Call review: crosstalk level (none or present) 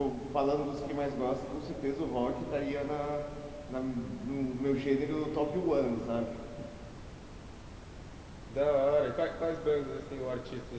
none